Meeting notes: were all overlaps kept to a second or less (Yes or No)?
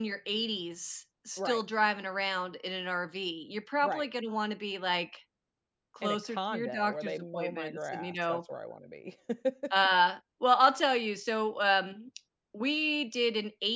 No